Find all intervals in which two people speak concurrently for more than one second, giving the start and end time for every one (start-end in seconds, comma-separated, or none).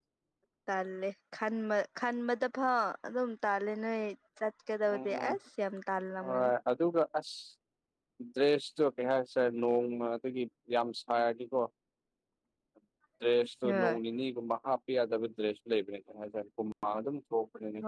none